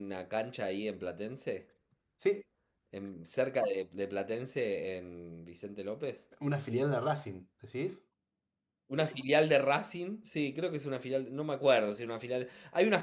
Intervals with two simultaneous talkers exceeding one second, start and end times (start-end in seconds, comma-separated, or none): none